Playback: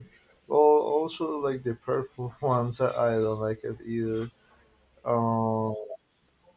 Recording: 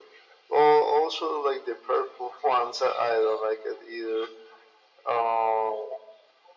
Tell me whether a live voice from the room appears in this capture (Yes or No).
No